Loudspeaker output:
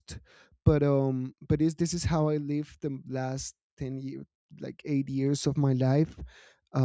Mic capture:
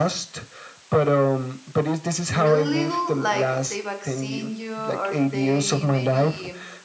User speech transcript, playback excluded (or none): really little, like they vaccine you or they maybe